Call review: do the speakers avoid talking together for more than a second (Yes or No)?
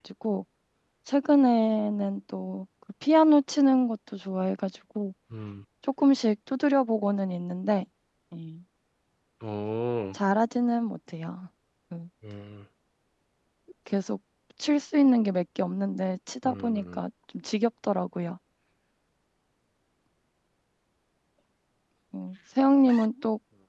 Yes